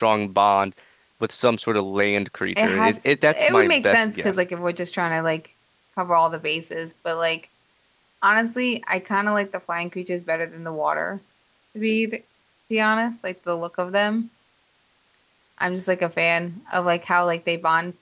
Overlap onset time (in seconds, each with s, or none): 2.6 s